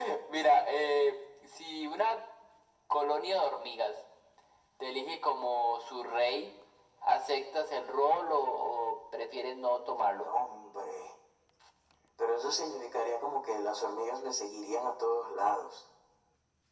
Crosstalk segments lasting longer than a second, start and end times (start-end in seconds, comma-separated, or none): none